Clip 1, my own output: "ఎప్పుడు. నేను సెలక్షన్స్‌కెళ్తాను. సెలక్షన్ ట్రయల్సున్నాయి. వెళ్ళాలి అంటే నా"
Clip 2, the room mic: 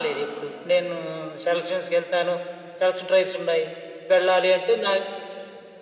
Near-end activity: none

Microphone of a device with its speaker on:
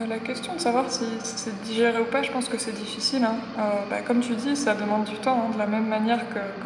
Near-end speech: none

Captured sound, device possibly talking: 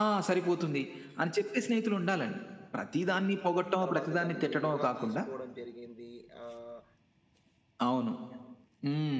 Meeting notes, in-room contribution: present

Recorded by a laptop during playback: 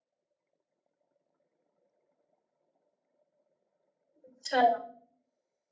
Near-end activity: present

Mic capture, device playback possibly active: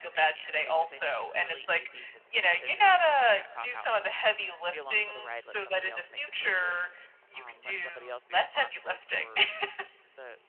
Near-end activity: present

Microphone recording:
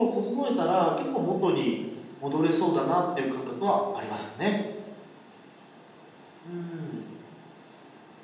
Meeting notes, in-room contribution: none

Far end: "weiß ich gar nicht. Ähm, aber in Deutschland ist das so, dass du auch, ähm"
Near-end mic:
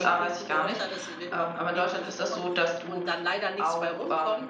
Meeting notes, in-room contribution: present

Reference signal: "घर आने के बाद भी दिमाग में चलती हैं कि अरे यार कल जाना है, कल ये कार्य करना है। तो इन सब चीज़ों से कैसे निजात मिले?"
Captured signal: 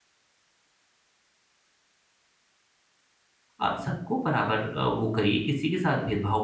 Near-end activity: present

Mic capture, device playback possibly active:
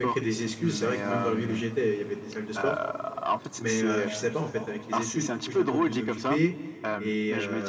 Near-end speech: present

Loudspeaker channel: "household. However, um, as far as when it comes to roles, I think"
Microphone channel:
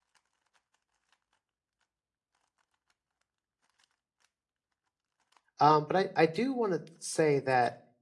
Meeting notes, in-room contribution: present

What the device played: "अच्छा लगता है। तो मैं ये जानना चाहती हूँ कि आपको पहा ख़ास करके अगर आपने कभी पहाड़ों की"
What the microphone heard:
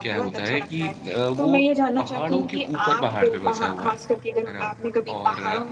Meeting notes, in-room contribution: present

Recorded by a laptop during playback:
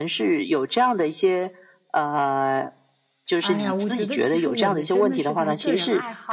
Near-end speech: present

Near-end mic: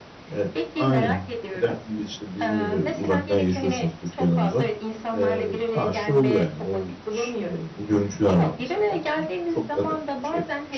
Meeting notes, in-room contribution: present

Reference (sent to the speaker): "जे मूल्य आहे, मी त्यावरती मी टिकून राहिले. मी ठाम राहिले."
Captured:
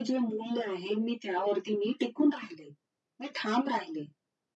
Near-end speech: none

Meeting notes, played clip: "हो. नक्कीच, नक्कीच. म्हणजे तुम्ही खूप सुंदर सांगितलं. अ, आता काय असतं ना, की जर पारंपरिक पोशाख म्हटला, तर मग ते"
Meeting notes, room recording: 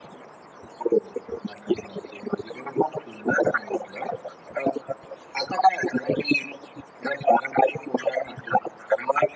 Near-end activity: none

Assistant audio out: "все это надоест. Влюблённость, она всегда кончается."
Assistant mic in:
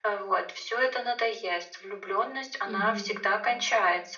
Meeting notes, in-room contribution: present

